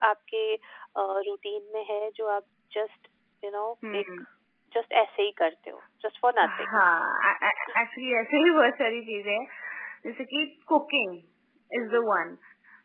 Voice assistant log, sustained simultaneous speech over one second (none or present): none